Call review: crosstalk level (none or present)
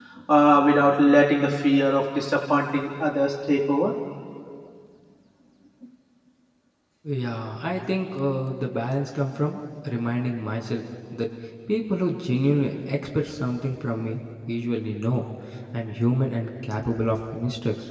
none